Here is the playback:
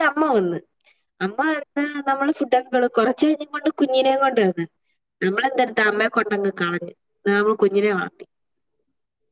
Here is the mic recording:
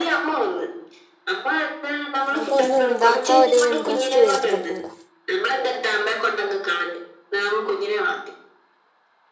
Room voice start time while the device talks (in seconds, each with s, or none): 2.4 s